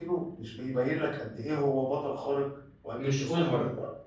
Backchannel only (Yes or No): Yes